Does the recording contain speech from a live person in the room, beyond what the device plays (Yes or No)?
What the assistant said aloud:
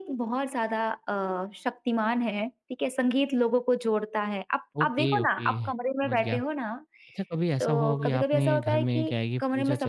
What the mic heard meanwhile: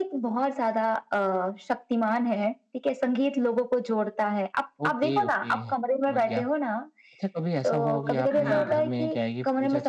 Yes